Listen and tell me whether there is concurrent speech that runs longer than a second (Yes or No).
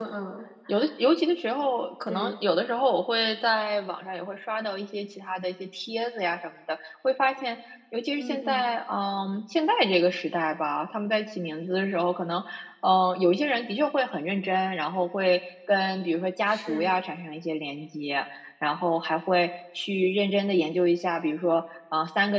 No